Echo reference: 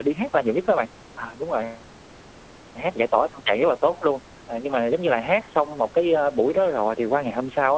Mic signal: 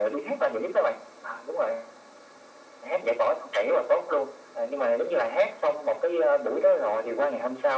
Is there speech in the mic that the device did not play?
No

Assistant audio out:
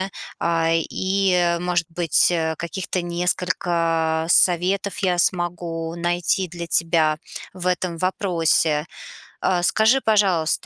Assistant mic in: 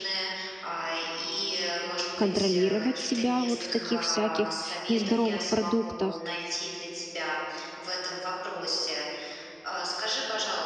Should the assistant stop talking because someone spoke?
Yes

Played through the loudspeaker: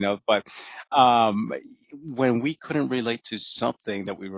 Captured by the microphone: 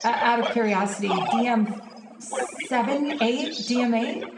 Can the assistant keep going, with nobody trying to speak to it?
No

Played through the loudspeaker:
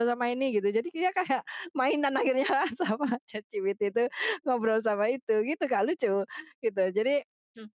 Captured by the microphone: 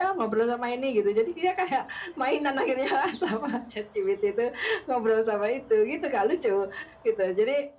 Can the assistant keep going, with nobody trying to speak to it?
Yes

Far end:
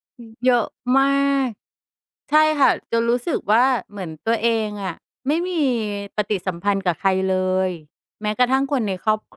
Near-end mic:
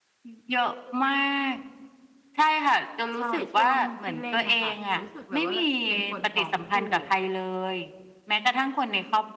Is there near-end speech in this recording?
Yes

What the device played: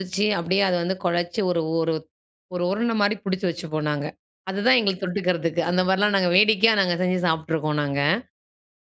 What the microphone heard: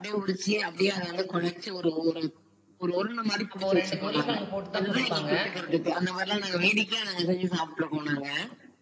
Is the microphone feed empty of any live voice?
No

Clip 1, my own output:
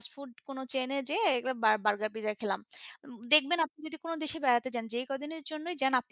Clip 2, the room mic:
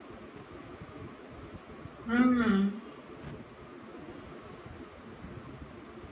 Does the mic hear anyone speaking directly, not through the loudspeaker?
Yes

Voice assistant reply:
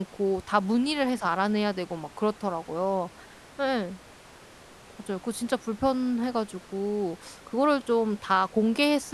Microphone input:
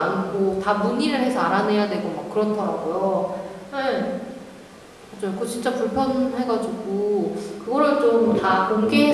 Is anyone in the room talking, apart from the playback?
Yes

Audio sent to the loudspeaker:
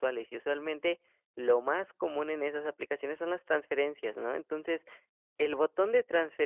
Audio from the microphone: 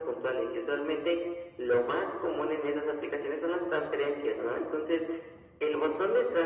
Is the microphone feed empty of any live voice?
Yes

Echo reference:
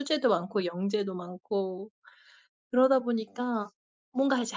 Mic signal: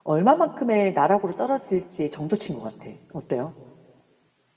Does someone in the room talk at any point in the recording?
Yes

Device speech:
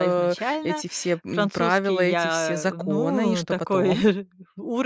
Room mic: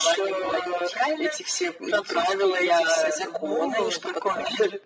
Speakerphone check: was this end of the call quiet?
Yes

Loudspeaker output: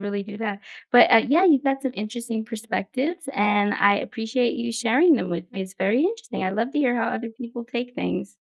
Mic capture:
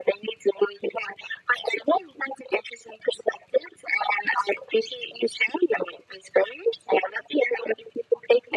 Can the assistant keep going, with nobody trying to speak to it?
Yes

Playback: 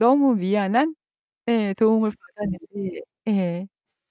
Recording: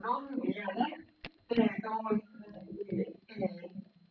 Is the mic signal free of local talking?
Yes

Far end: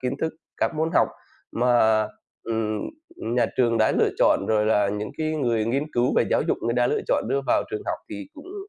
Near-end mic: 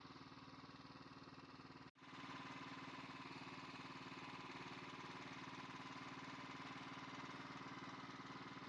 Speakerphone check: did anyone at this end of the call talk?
No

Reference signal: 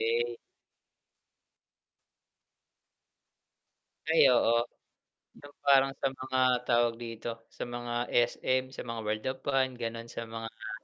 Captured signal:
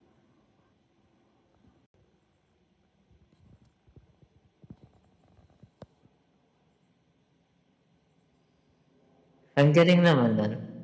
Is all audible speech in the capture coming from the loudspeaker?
No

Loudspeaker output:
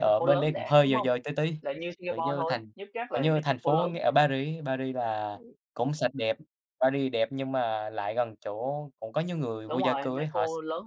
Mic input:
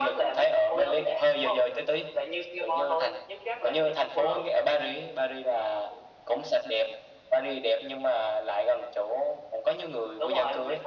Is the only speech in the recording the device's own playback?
Yes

